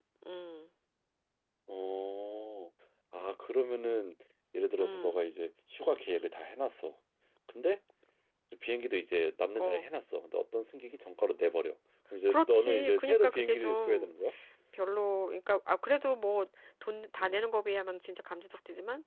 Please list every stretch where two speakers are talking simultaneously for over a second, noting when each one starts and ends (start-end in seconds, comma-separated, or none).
12.3-14.1